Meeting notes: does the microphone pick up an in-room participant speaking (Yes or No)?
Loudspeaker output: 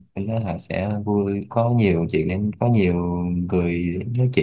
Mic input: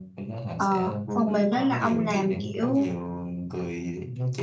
Yes